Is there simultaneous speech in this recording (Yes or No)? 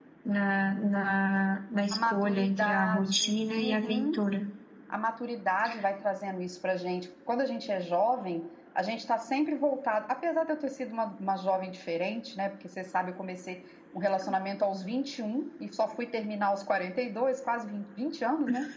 Yes